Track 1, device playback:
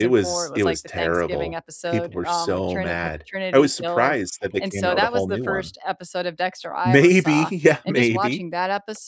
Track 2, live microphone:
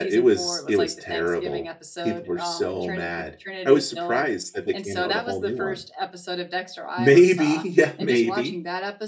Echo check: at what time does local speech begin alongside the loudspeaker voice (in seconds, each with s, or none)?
none